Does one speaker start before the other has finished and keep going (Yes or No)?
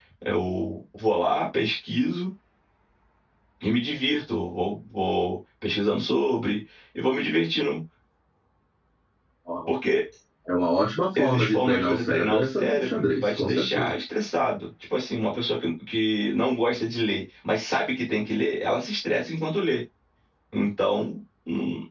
Yes